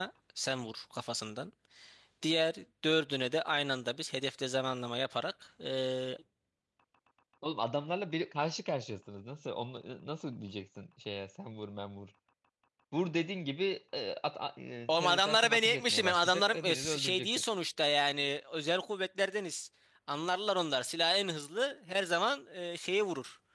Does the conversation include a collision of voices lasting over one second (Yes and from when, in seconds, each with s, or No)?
Yes, from 14.9 s